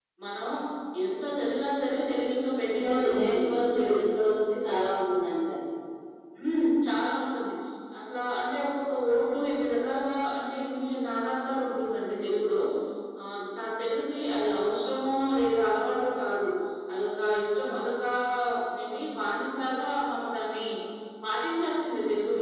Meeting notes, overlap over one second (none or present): present